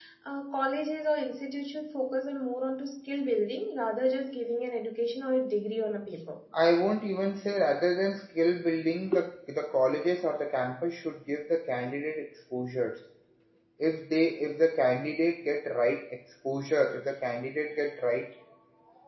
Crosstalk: none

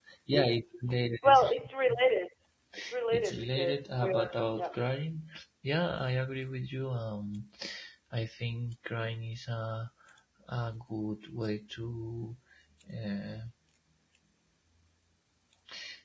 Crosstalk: present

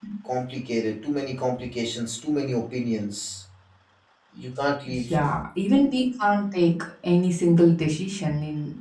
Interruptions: none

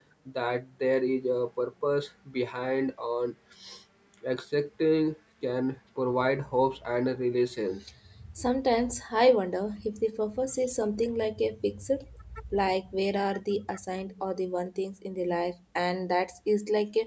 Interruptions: none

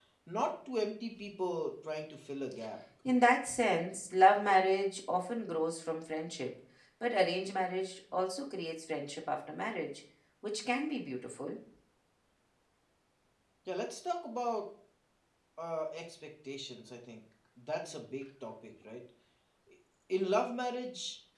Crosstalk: none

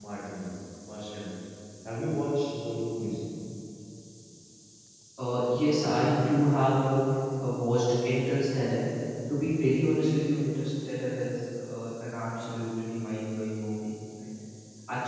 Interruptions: none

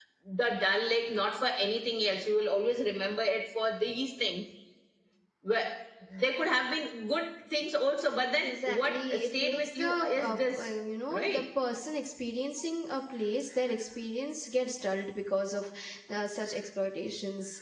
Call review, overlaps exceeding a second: present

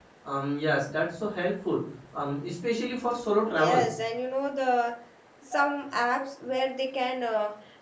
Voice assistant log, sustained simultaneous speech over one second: none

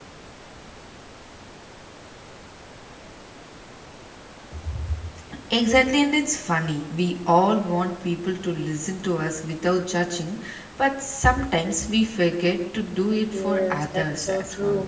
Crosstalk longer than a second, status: present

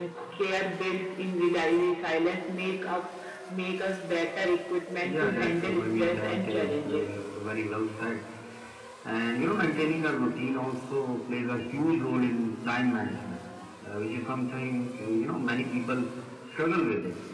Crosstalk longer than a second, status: present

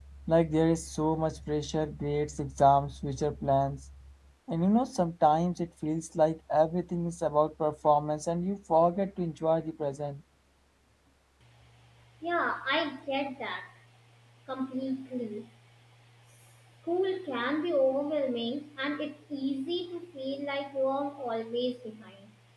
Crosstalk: none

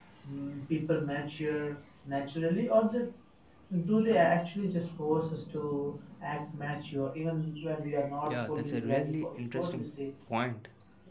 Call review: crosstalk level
present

